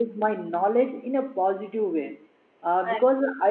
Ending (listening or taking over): listening